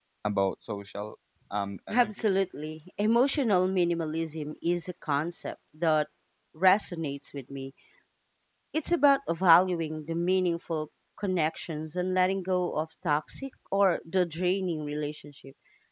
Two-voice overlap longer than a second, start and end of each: none

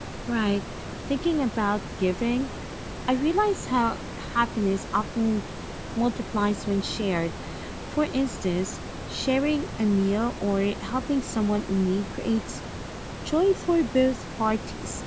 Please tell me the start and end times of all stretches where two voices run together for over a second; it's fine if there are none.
none

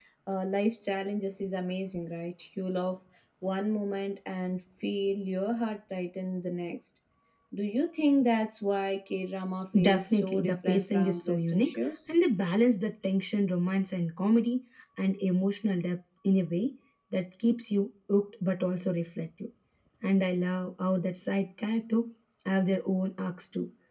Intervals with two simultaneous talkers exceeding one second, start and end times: 9.8-12.2

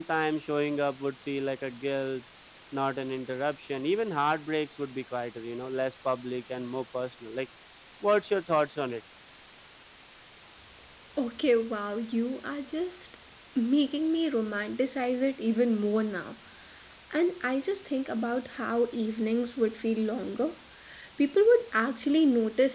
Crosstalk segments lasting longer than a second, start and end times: none

